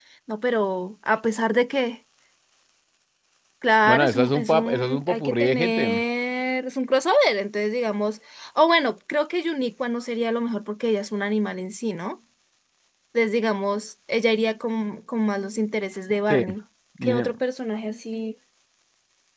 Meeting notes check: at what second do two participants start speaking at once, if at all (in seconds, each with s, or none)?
3.8 s